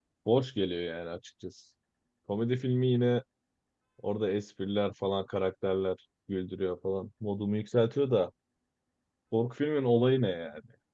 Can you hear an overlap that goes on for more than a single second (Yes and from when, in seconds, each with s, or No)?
No